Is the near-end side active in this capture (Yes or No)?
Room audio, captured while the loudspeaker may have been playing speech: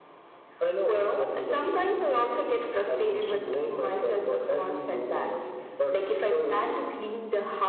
No